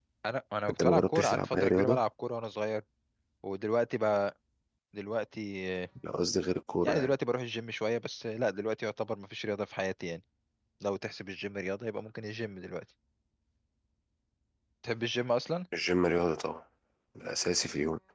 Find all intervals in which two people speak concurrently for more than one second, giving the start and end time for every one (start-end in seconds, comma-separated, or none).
0.7-2.0